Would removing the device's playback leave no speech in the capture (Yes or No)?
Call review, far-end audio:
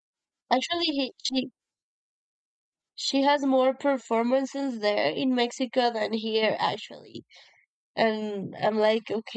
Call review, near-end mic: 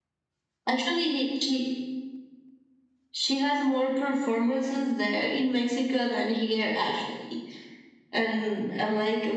Yes